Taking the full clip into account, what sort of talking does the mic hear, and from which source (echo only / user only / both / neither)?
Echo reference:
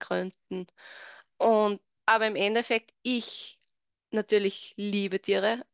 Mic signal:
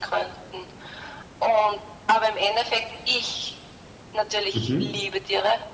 both